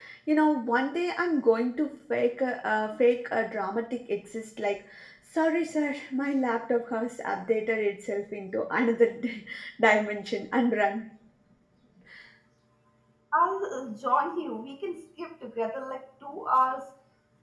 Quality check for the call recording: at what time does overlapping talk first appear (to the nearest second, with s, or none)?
none